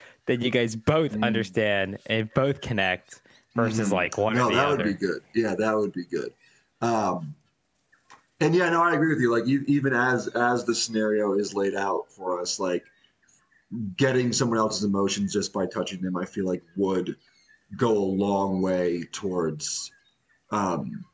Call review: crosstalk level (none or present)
present